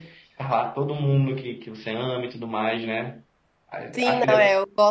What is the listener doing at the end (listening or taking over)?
taking over